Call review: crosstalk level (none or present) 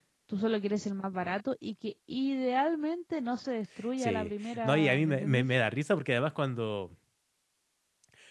present